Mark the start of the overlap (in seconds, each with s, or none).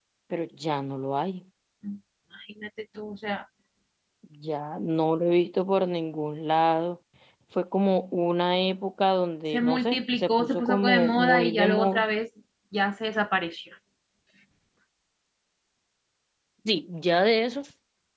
9.5 s